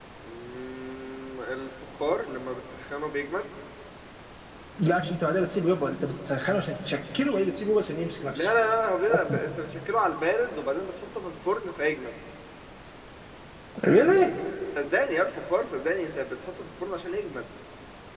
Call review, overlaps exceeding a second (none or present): none